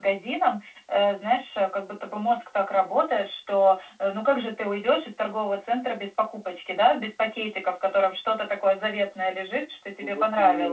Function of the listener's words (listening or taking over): listening